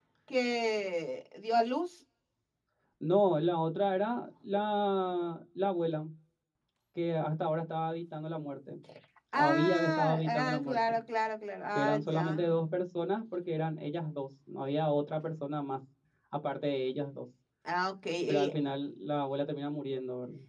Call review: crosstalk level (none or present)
present